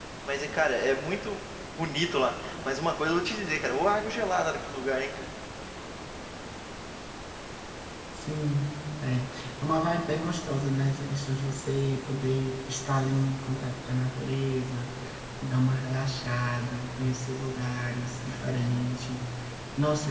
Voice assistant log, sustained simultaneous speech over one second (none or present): none